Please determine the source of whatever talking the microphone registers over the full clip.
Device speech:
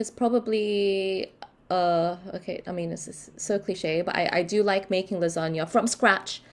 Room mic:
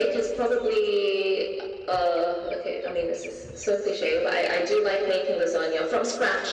echo only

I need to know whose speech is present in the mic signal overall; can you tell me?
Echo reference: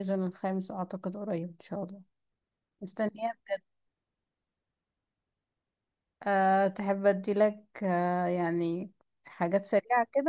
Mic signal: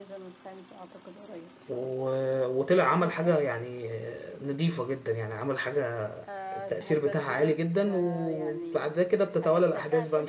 both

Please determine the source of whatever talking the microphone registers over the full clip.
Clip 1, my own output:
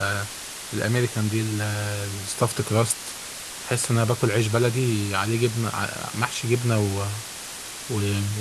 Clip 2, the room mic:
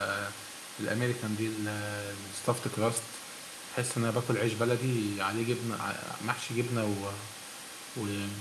echo only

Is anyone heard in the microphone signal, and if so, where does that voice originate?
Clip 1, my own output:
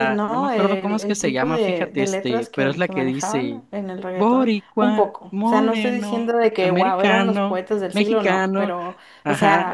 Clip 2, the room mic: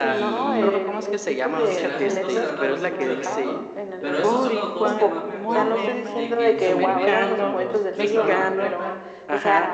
both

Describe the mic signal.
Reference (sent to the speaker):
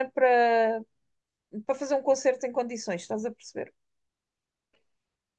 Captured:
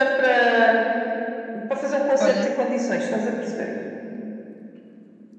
both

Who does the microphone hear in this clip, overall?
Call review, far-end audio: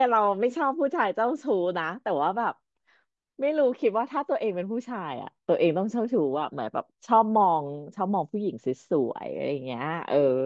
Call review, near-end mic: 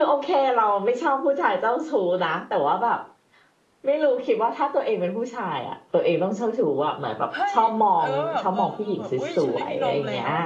both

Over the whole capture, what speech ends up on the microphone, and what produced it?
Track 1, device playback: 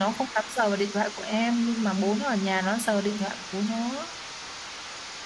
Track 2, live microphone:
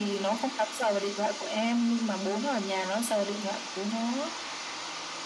echo only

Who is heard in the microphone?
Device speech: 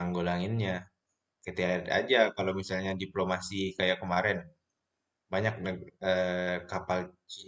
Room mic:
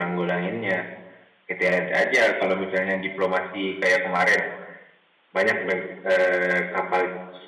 echo only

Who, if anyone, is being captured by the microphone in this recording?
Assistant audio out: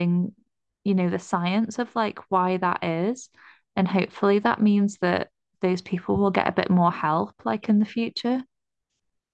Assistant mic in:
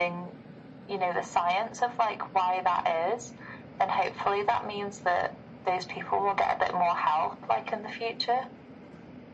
echo only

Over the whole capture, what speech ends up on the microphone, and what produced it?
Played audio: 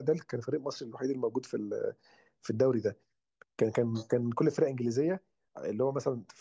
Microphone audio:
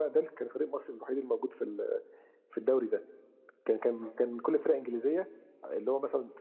echo only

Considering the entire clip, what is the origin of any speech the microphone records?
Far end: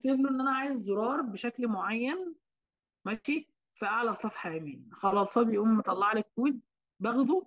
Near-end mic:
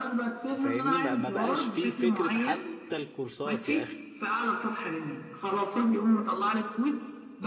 both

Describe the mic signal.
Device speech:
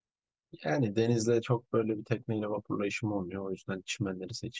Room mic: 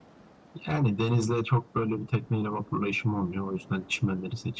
echo only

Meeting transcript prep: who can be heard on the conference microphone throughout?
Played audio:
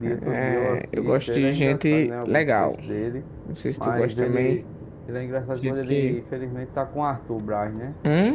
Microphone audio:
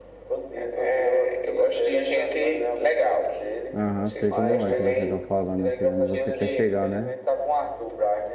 both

